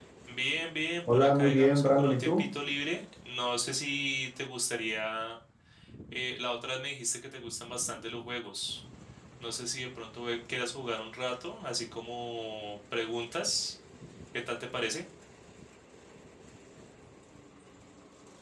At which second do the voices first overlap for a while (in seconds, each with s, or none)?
1.1 s